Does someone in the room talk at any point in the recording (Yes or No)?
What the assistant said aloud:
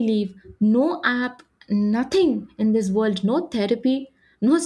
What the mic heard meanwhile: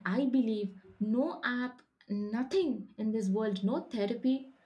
No